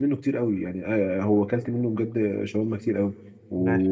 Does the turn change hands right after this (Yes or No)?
No